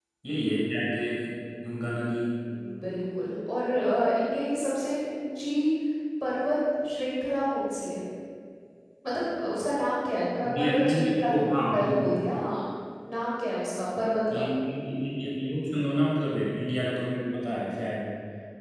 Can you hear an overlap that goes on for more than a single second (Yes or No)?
Yes